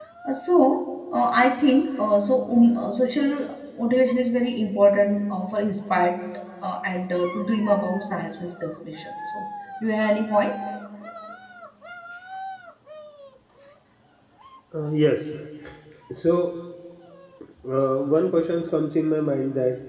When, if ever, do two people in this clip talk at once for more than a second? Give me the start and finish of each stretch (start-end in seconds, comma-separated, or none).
none